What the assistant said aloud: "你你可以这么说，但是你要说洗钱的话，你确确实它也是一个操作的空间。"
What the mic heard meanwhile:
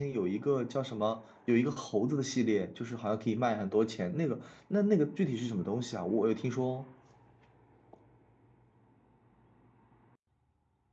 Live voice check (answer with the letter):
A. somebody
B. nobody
A